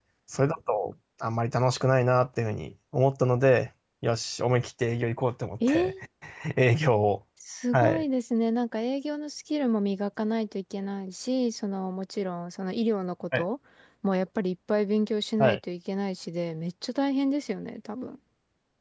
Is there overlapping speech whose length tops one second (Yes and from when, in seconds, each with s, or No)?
No